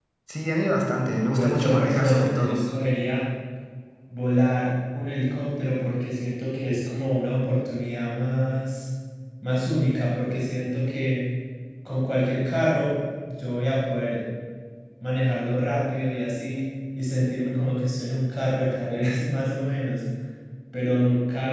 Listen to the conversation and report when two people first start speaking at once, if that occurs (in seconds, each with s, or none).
1.4 s